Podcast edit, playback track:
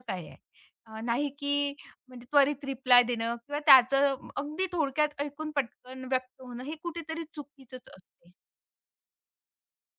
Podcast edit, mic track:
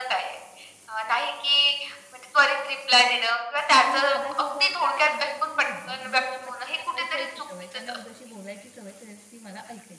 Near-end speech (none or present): present